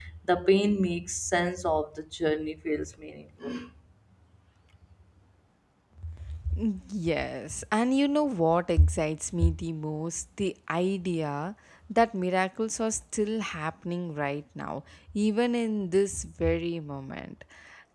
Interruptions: none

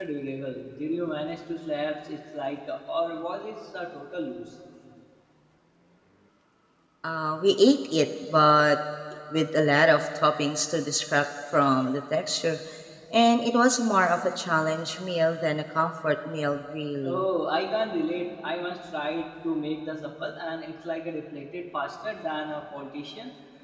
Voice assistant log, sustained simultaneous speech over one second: none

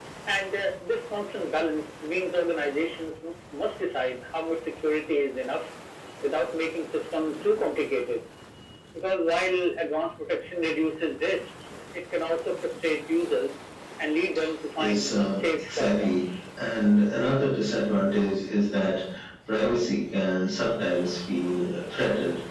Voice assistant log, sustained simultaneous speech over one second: present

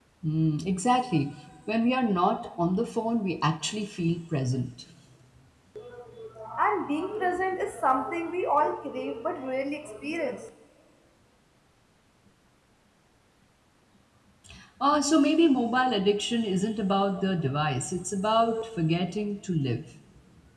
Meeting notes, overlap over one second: none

